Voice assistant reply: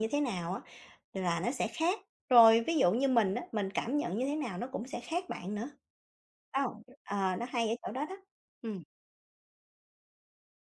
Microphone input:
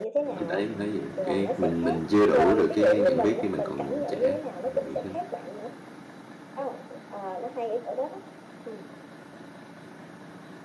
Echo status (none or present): present